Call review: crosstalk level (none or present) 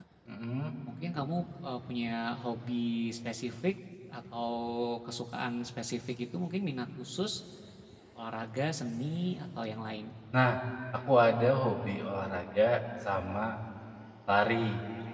none